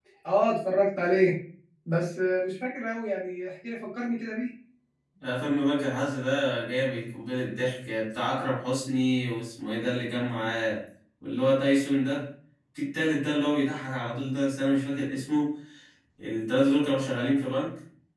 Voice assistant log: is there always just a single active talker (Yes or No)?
Yes